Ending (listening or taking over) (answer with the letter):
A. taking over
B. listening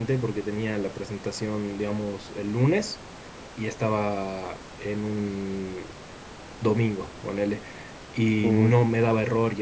B